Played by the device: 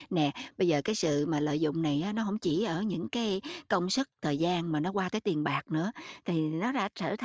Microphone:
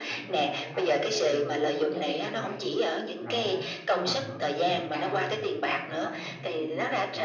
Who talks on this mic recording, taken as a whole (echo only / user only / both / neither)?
both